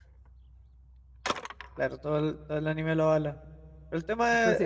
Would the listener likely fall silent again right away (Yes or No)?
No